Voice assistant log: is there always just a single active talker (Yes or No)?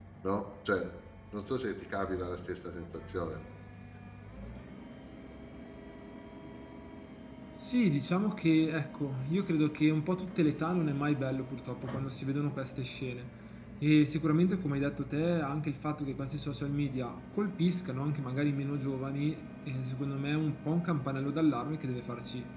Yes